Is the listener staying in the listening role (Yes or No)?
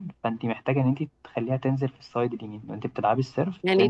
No